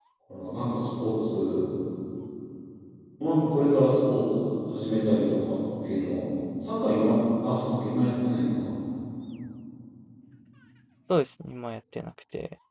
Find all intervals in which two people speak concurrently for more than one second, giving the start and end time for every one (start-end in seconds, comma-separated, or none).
none